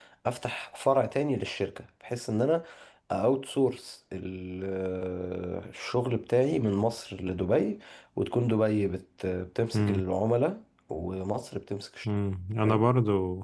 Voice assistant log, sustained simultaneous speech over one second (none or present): none